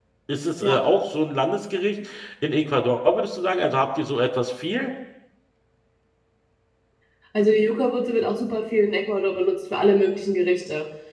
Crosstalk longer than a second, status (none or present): none